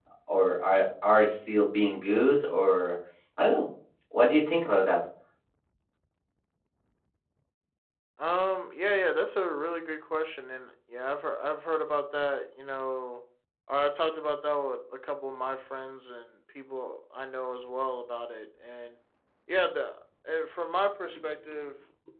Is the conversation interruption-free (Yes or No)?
Yes